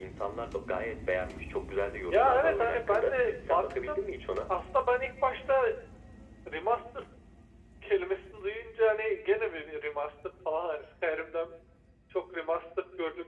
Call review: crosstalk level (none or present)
present